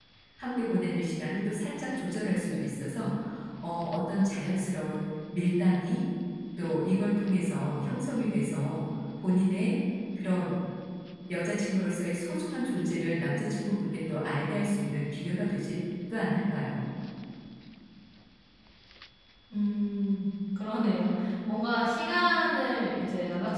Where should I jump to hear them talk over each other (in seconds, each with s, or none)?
none